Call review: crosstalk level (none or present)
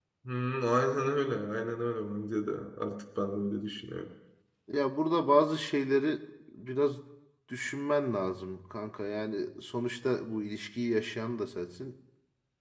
none